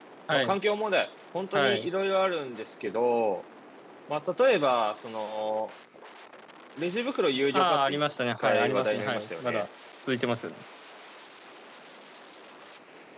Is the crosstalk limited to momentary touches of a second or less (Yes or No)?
No